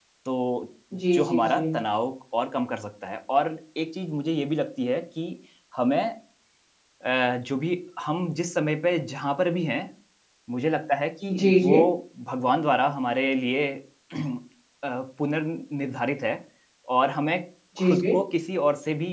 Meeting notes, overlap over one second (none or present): none